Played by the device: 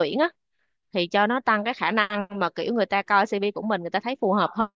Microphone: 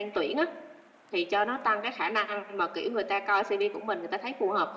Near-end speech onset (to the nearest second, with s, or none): none